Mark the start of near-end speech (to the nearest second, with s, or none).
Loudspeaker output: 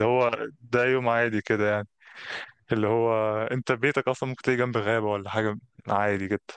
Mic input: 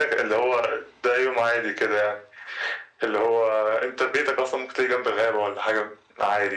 none